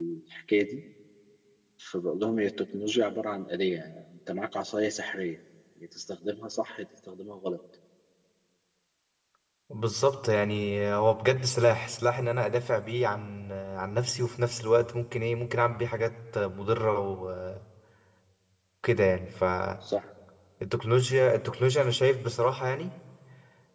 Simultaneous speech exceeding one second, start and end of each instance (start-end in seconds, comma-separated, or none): none